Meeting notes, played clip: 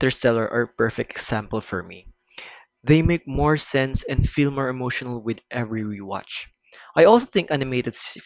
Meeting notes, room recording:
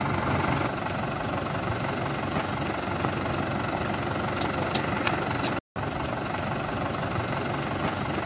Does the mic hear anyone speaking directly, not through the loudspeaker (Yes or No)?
No